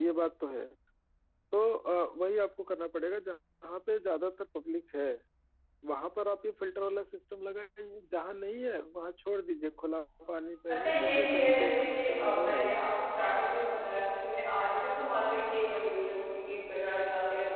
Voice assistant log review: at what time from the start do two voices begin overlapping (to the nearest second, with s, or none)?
11 s